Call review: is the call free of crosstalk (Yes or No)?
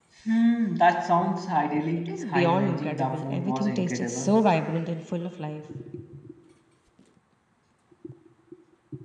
No